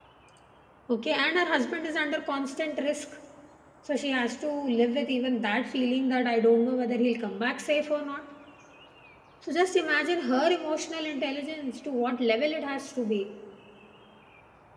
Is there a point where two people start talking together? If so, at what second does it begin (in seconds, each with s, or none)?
none